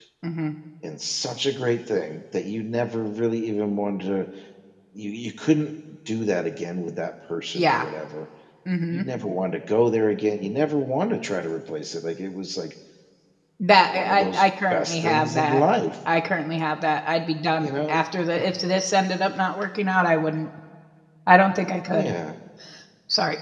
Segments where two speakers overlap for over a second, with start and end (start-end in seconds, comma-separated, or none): 13.9-15.6